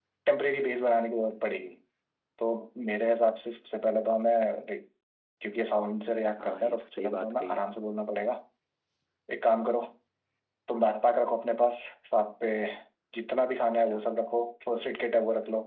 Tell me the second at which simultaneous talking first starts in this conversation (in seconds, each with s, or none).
6.4 s